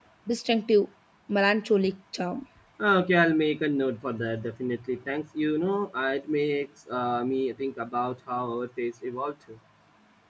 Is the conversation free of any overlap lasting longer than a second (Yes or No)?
Yes